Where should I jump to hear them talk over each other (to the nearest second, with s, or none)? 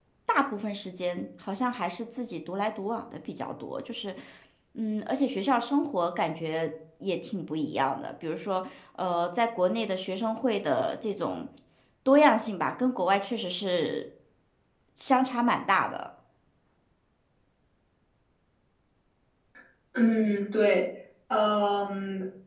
none